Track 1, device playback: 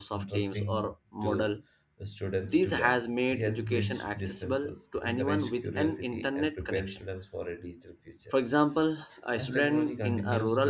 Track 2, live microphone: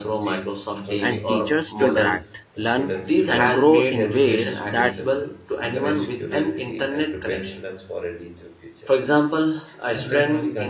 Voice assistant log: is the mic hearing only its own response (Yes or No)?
No